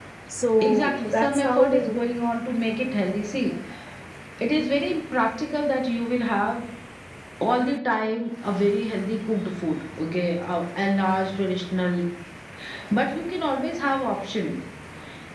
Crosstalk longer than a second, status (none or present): present